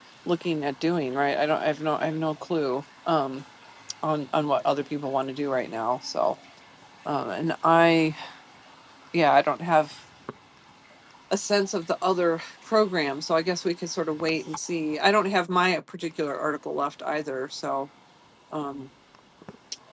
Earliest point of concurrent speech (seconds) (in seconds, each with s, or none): none